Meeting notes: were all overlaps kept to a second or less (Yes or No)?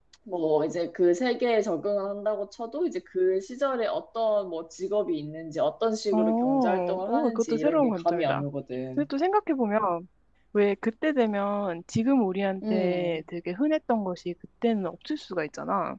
No